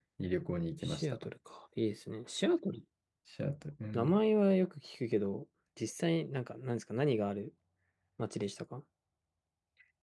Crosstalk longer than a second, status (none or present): none